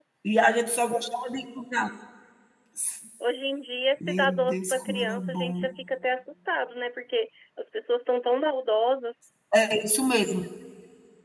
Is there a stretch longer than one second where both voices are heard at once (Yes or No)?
Yes